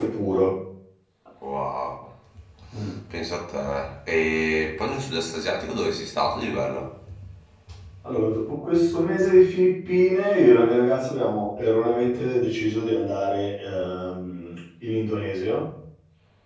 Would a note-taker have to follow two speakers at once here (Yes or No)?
No